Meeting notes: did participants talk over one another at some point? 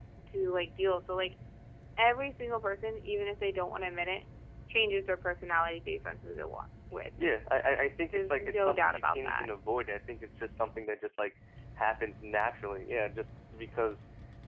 Yes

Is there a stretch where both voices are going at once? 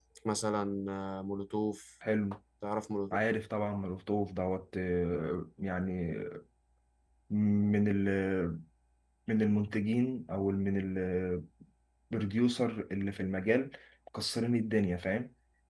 No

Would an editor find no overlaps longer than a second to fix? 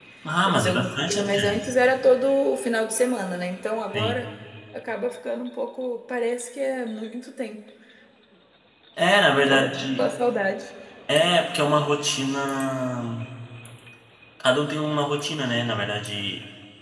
No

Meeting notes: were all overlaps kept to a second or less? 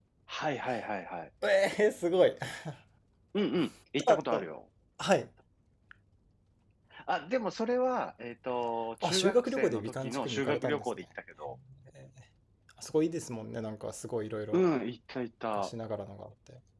No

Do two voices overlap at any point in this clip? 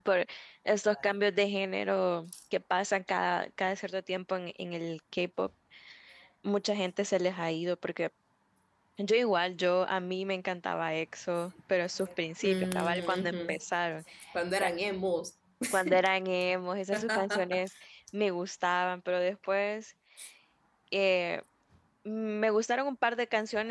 Yes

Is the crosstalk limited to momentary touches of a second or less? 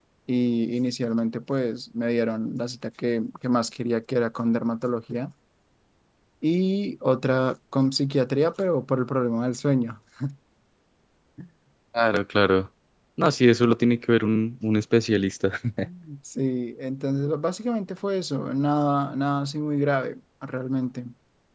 Yes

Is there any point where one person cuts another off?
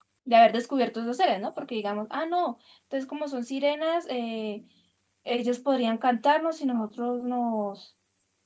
No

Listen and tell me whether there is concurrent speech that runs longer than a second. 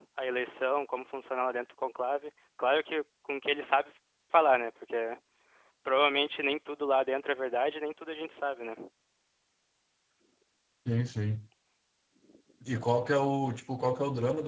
No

